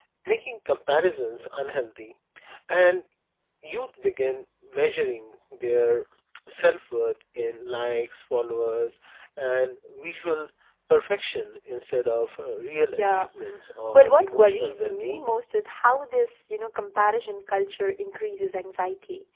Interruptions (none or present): present